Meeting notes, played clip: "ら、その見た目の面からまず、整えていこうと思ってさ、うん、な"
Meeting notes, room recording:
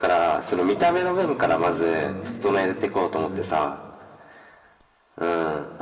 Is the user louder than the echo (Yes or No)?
No